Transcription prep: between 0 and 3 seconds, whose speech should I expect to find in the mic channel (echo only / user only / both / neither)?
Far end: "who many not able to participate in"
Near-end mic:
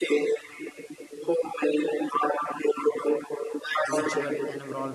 echo only